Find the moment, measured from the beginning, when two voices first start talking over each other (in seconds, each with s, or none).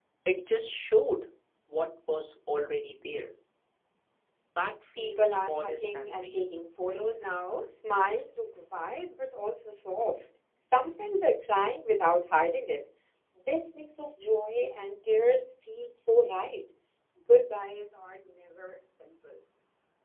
5.0 s